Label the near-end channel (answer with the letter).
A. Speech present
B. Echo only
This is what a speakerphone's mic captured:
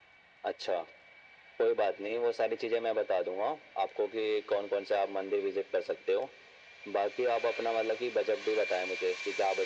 B